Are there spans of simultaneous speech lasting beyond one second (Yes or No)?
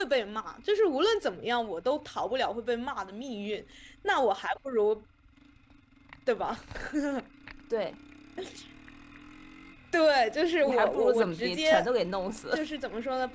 Yes